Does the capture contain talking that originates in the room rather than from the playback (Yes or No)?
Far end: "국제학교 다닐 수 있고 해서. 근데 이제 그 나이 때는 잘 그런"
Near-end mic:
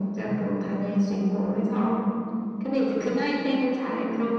No